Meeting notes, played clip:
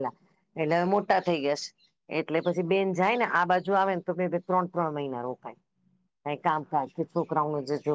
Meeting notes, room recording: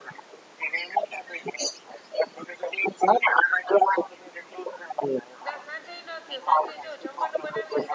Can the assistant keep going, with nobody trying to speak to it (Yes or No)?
No